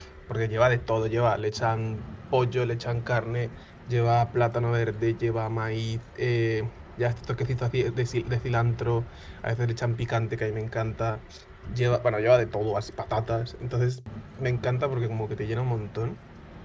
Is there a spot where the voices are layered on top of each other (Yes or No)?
No